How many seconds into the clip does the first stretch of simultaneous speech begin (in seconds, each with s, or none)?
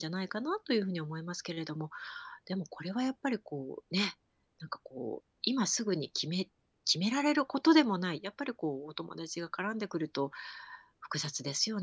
none